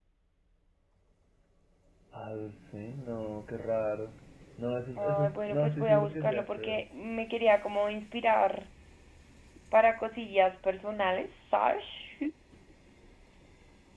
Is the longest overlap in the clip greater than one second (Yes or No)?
Yes